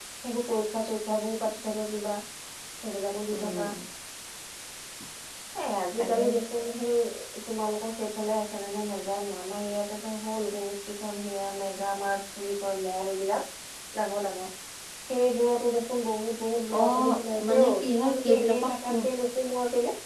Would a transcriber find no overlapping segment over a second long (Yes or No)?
No